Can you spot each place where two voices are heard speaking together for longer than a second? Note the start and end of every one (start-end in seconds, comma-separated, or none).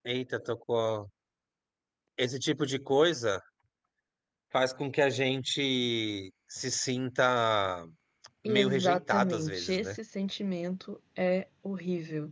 8.4-9.9